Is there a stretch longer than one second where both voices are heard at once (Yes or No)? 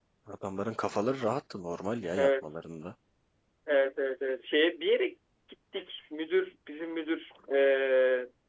No